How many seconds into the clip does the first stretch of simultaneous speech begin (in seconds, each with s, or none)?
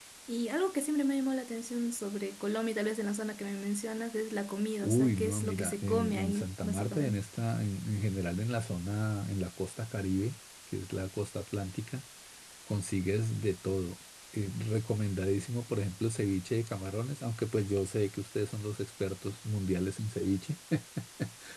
4.8 s